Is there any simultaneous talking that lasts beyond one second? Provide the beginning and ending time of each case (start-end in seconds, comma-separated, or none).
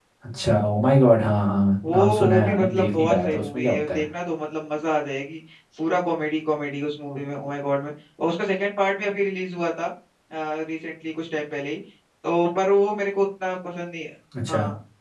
1.9-4.0